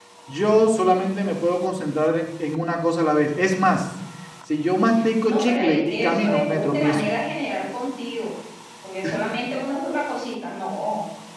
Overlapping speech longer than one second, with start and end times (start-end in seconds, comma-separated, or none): 5.2-7.0